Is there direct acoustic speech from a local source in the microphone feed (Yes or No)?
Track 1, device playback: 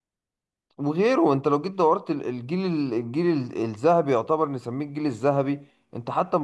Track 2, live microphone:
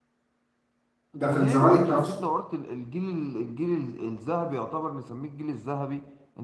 Yes